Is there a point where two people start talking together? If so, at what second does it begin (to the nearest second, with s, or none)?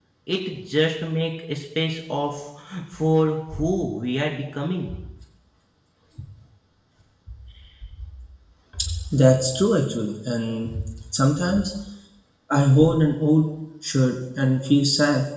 none